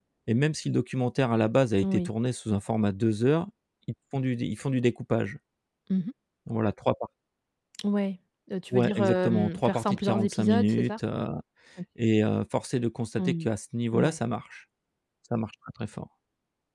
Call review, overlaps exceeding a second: present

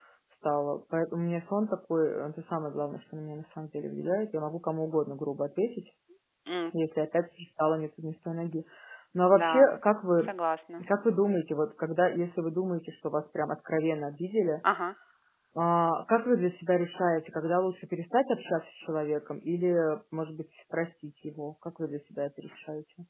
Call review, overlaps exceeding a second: none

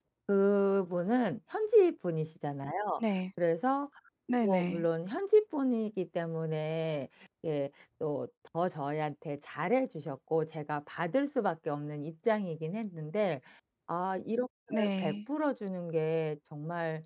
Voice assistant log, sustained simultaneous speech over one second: none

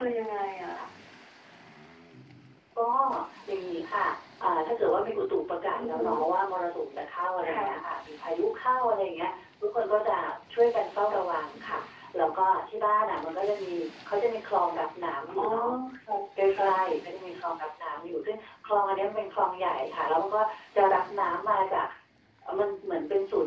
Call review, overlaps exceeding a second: none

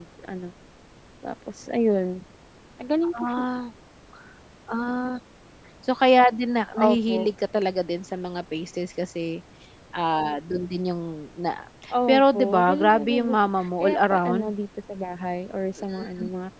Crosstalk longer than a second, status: present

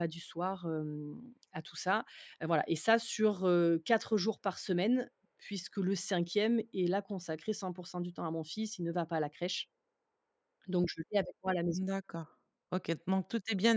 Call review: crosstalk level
none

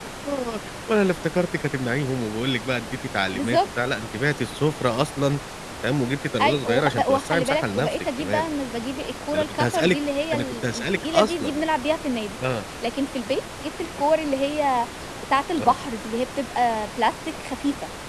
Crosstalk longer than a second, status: present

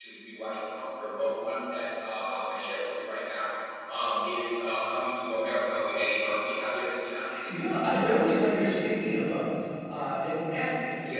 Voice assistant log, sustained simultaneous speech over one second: none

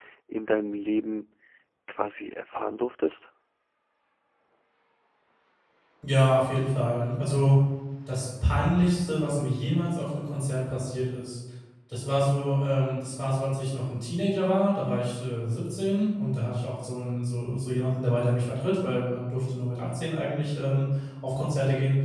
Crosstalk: none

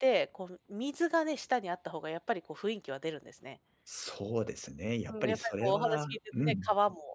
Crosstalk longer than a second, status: present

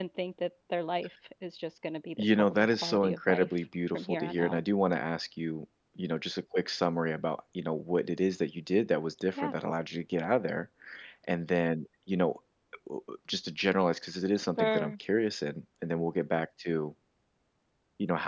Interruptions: present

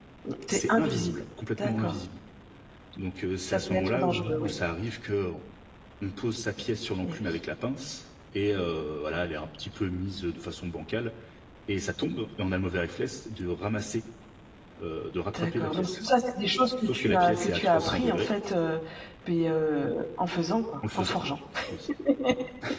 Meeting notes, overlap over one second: present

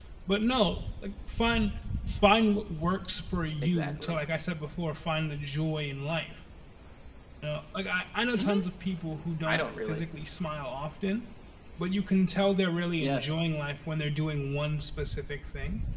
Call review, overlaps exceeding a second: none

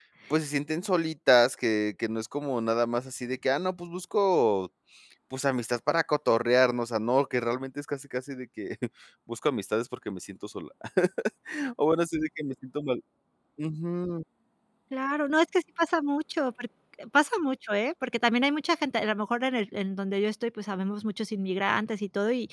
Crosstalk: none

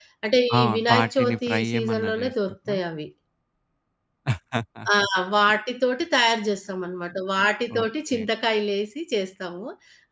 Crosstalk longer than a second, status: present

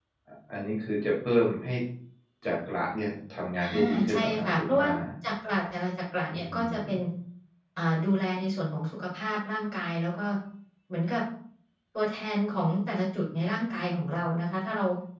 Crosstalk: present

